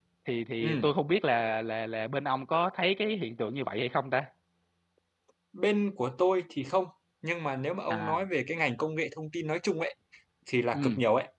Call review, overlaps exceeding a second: none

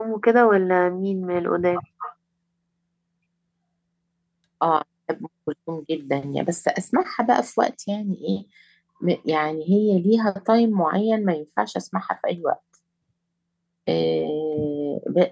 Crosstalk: none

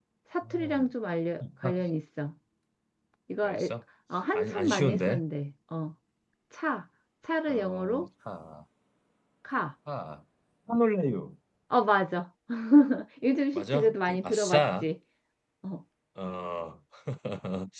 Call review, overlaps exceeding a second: present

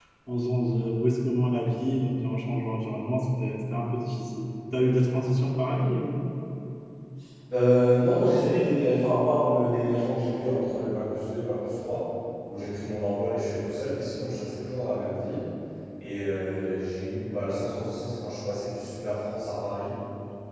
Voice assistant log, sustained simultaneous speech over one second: none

